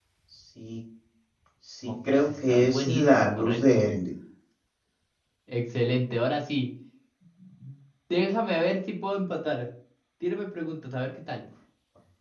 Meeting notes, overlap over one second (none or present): present